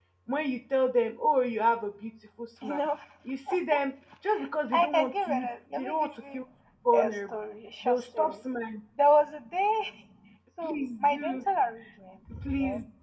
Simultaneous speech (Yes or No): Yes